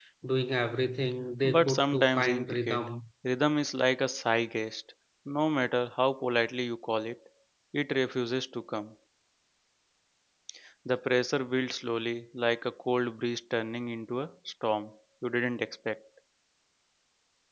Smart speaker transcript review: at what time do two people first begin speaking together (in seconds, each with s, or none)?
1.4 s